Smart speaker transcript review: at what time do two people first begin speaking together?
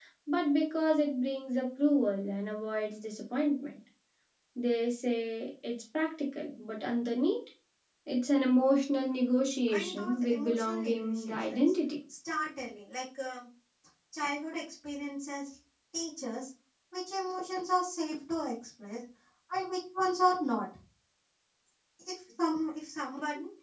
9.7 s

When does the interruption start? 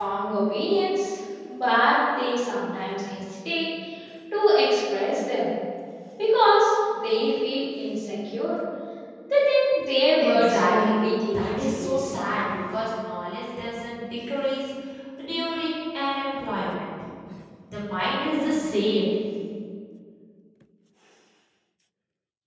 10.2 s

